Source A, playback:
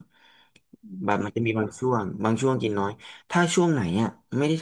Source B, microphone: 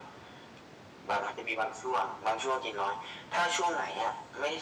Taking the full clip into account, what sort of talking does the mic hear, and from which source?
echo only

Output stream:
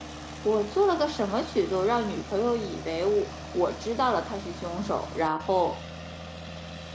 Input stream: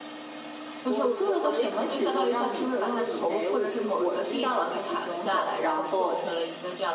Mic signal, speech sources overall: both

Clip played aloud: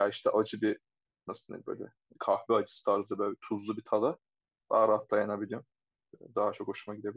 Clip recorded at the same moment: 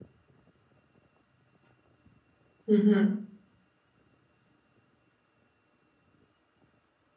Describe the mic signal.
user only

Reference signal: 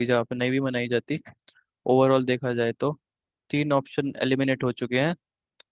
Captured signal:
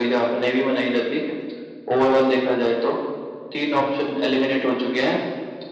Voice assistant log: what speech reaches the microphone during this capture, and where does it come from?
echo only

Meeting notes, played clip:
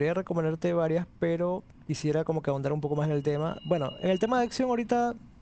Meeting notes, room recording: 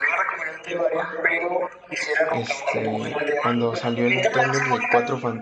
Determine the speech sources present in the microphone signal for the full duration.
both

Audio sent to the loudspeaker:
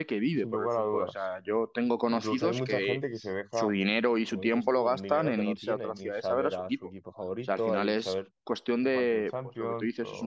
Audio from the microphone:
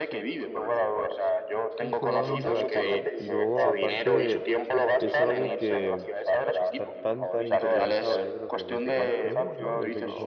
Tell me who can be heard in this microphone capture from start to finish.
both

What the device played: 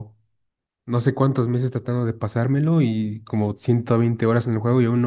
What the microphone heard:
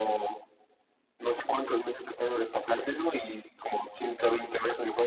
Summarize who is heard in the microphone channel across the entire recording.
echo only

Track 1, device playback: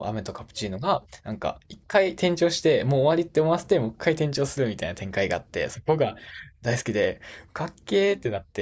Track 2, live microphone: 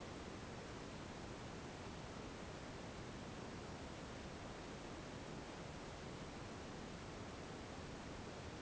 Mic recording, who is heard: neither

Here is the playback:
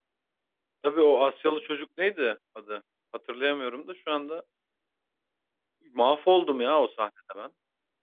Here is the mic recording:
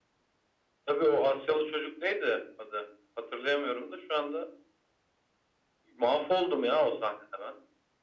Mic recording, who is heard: echo only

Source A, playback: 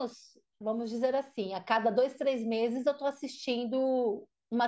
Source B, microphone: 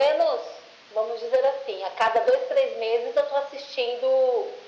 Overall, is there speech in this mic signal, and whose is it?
echo only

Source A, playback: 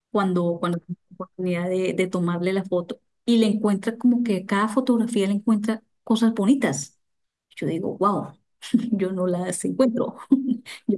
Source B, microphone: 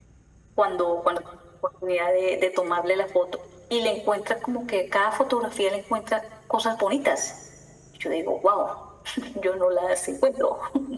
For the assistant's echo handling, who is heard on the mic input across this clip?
echo only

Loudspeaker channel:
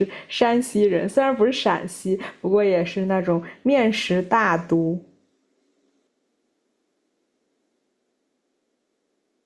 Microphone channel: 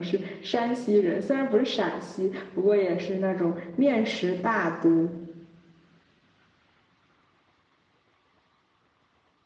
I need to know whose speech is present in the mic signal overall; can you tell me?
echo only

